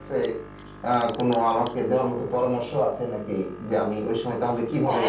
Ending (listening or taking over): taking over